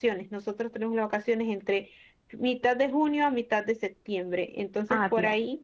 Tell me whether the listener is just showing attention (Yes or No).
Yes